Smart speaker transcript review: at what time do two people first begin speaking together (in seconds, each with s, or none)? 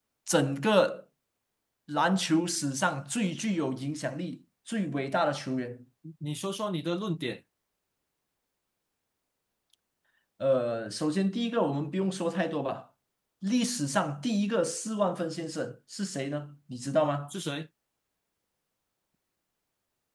none